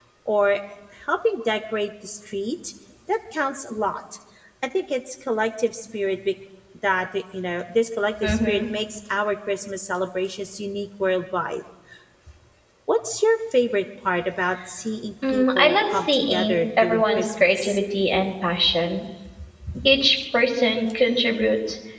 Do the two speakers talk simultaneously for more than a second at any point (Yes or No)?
Yes